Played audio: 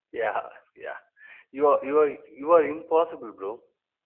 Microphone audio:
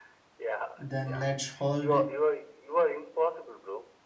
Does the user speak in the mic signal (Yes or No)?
Yes